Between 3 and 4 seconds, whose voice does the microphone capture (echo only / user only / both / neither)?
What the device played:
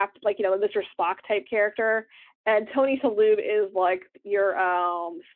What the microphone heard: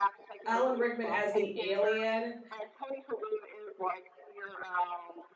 echo only